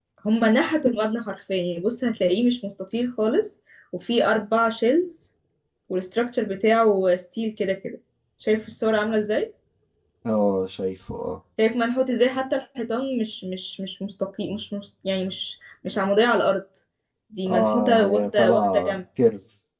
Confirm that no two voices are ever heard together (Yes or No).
No